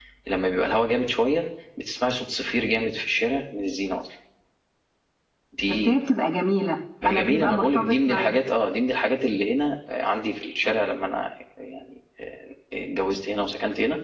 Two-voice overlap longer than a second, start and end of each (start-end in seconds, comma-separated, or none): 7.0-8.3